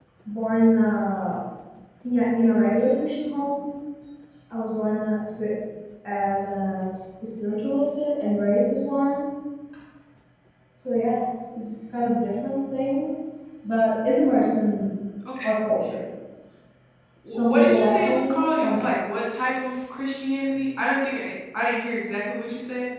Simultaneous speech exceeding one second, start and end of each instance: 17.3-18.9

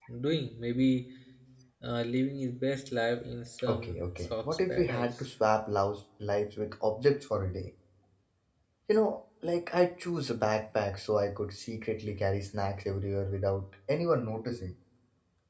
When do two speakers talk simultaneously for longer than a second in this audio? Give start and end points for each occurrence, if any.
3.7-5.2

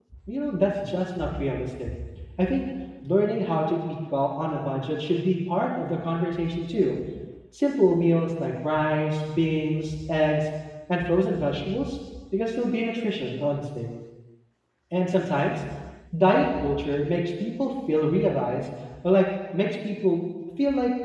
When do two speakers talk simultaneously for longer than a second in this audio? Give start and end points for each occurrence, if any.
none

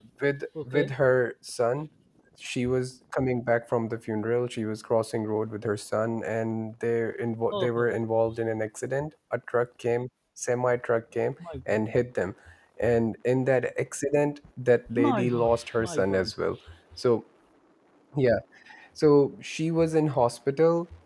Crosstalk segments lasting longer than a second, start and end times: 14.9-16.3

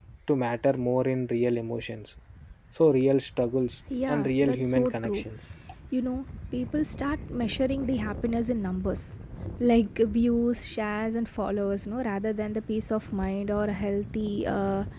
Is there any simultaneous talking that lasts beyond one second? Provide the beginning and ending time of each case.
4.1-5.3

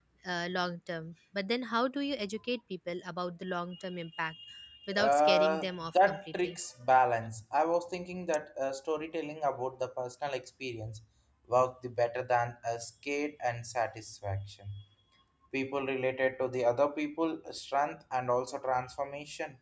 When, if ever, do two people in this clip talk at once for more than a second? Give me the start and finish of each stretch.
5.0-6.6

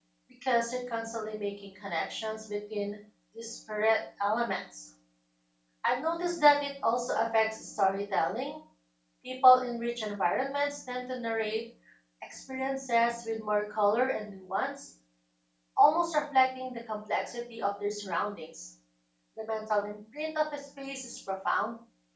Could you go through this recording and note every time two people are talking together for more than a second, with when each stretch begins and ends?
none

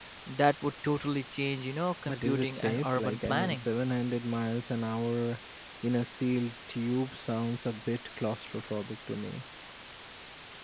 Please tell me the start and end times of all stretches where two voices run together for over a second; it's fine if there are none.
2.1-3.6

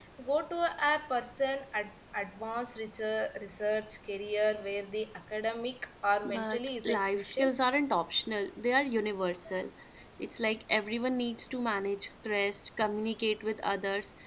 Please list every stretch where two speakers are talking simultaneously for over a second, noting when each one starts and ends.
6.2-7.5

